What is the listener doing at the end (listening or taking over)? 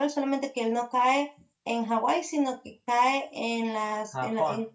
listening